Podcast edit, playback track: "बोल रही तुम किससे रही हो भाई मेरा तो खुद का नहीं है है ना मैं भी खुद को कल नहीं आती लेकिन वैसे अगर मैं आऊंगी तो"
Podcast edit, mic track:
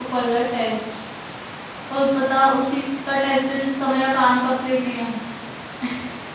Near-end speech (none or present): present